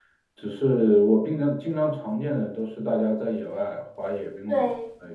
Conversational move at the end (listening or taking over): taking over